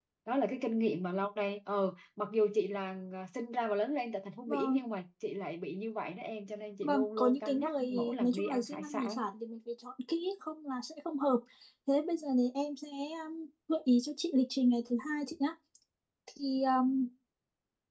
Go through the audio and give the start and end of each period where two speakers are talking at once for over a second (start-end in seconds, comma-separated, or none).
6.8-9.2